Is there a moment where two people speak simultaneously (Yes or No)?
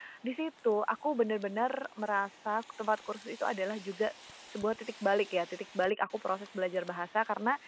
No